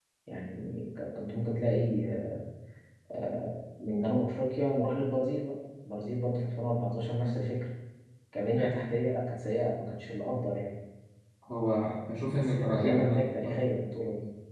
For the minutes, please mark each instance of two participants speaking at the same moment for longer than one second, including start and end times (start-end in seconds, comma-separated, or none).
12.3-13.6